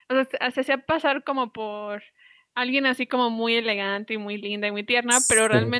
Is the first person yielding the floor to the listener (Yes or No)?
No